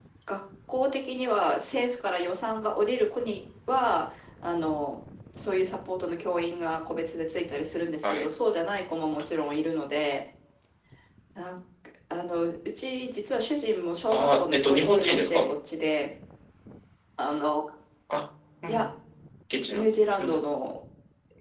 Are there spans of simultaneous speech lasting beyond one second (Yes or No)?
Yes